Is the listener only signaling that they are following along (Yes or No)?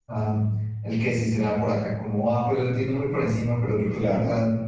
Yes